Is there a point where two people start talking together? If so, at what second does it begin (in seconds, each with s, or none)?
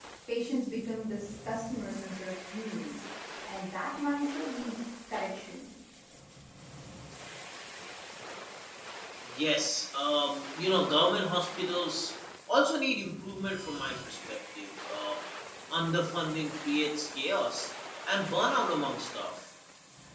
none